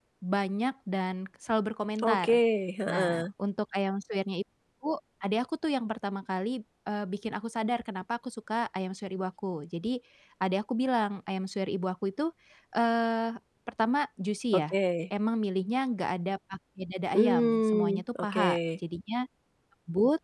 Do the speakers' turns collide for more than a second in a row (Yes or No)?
Yes